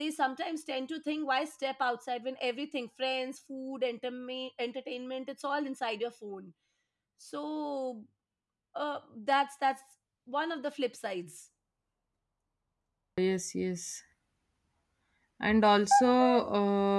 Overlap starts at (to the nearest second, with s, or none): none